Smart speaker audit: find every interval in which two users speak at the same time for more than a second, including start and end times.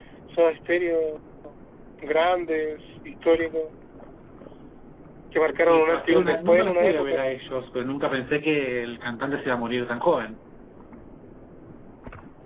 5.7-7.3

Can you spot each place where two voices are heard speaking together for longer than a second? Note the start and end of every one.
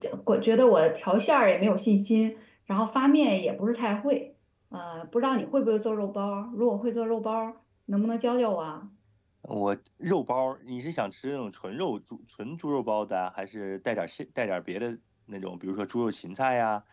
none

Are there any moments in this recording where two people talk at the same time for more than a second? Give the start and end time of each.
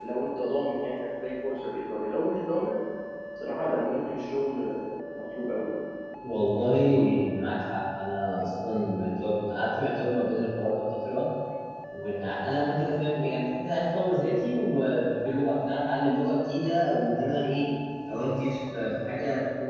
none

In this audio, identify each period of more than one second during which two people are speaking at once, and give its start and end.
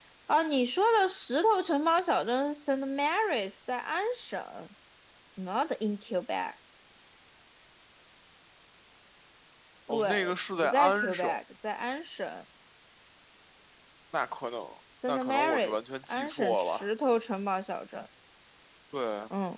9.9-11.4, 15.1-16.9

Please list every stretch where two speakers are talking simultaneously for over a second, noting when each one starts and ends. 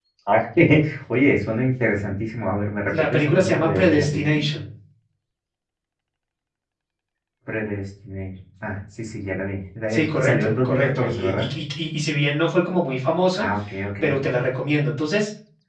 3.1-4.4, 9.9-11.5

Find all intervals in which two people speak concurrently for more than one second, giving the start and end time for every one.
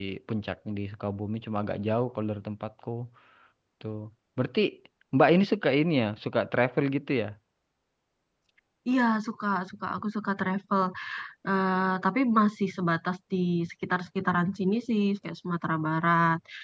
none

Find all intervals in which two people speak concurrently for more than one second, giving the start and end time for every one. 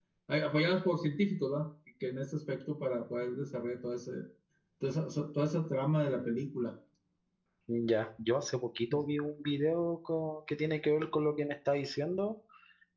none

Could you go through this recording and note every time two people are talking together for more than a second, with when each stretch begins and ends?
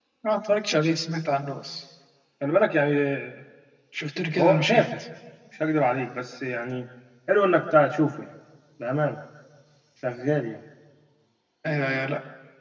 none

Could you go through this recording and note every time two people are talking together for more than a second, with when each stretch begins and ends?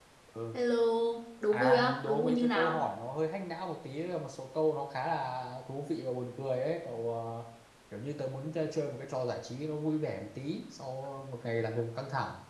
1.5-2.8

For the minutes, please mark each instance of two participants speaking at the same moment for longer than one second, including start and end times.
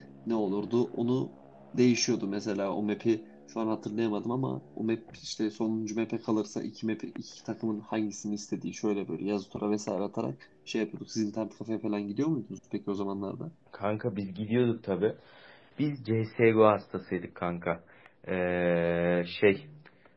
none

